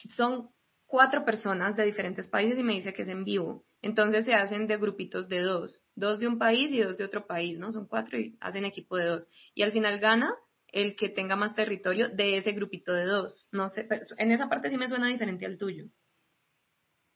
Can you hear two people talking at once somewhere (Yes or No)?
No